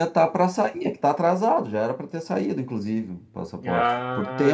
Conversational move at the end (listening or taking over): taking over